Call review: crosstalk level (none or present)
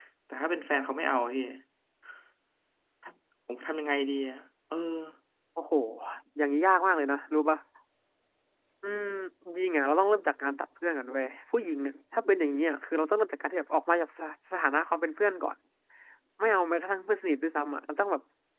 none